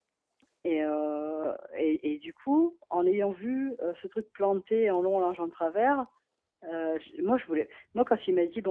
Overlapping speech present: No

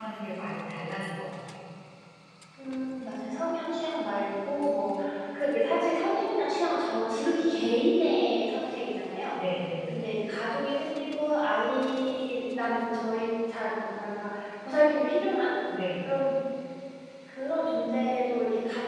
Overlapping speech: No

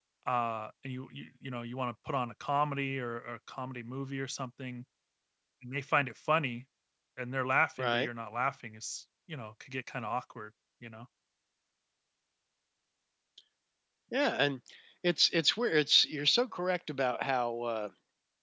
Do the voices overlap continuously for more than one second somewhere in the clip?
No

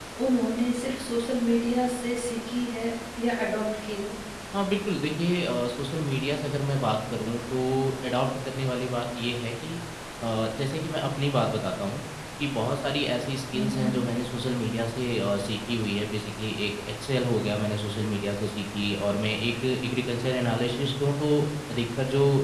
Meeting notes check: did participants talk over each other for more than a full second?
No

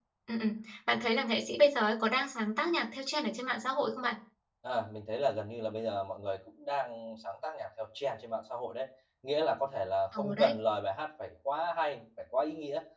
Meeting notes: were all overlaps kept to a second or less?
Yes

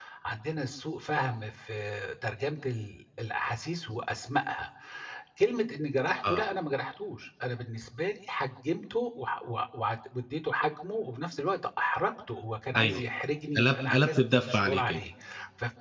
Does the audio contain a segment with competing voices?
Yes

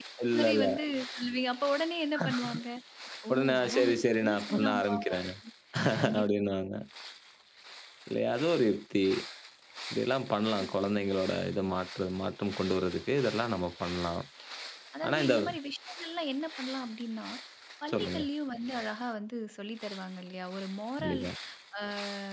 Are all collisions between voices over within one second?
No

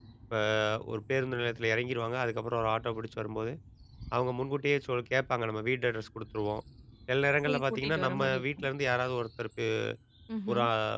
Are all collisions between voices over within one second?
No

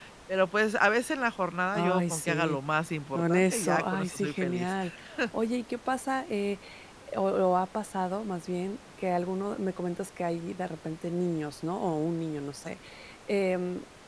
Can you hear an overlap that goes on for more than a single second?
Yes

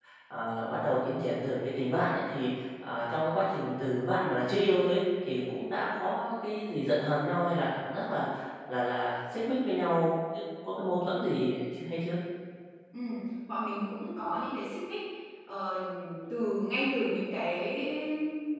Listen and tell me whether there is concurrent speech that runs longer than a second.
No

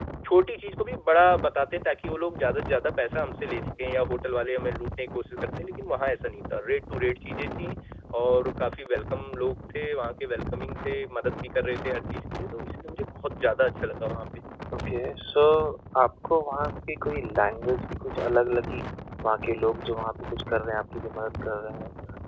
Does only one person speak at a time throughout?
Yes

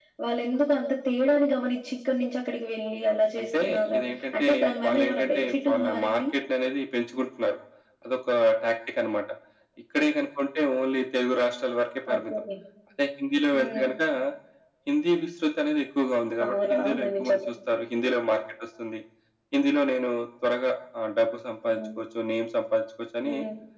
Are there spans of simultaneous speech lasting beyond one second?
Yes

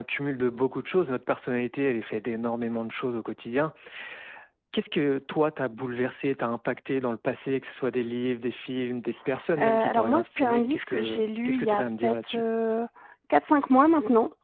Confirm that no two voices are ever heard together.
No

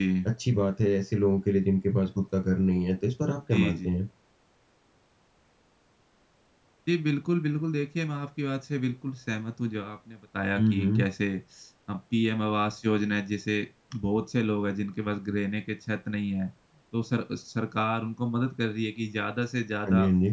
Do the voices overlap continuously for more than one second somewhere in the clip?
No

